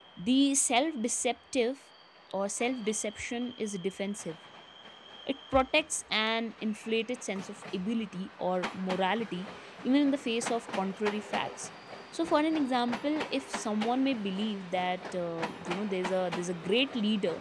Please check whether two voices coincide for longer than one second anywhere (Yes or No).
No